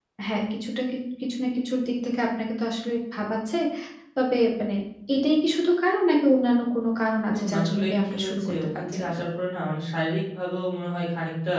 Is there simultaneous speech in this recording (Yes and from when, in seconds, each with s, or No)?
Yes, from 7.3 s